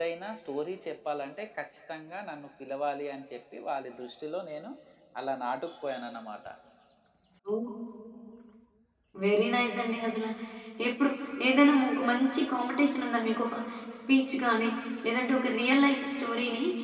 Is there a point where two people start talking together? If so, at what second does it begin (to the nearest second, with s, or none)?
none